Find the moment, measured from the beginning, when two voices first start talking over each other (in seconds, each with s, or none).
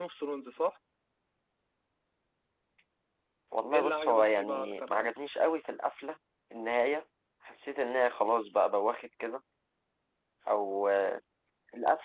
3.7 s